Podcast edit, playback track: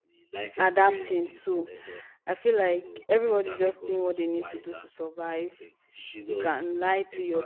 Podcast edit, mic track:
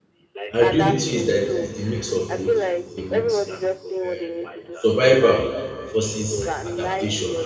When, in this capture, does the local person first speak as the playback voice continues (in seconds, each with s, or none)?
0.5 s